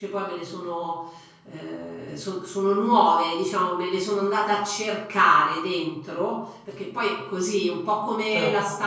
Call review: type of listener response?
listening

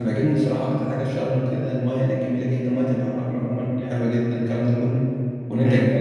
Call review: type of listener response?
taking over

